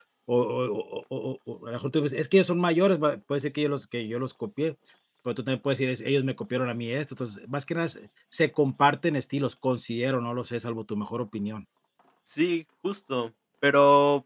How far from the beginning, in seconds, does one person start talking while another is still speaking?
none

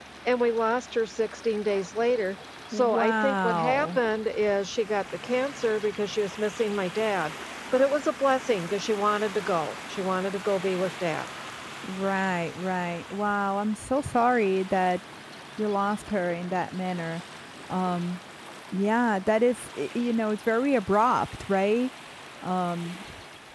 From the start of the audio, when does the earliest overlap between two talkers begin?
2.7 s

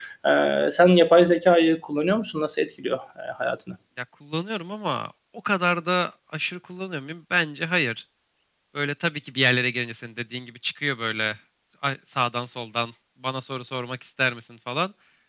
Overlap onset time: none

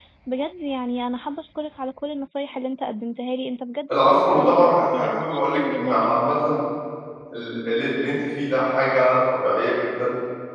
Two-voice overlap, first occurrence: 3.9 s

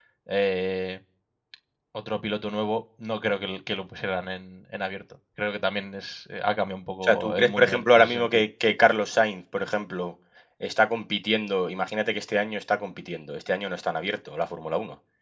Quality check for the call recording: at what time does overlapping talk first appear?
7.0 s

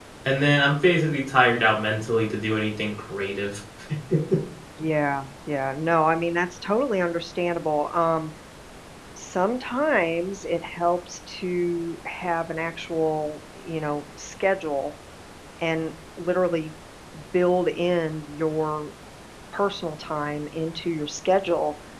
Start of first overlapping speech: none

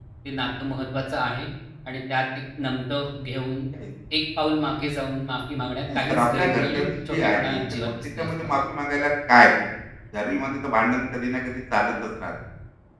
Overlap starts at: 5.9 s

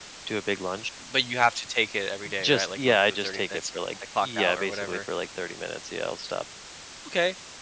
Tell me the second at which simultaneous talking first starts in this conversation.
2.2 s

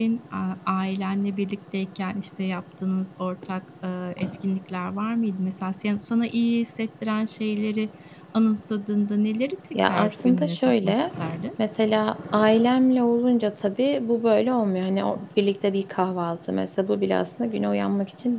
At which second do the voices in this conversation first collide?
9.7 s

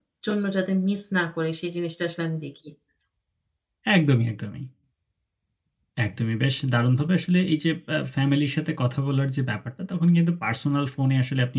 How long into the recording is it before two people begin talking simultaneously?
none

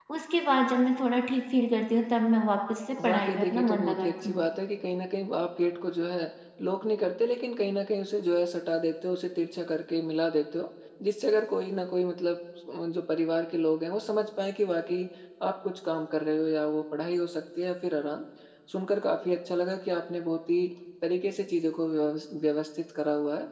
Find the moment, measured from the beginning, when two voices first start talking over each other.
3.0 s

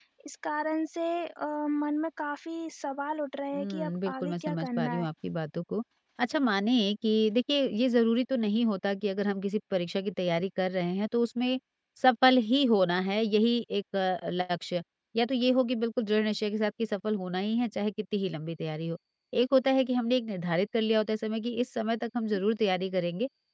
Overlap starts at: 3.5 s

